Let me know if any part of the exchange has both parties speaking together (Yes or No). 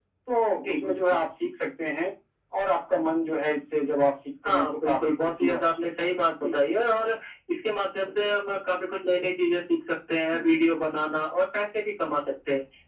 Yes